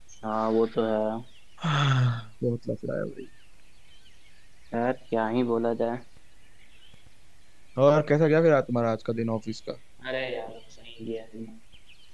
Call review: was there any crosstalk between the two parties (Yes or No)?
No